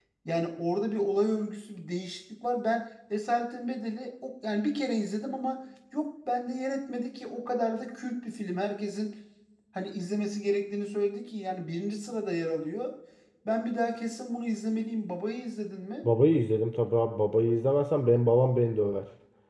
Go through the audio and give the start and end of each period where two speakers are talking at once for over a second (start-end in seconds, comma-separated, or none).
none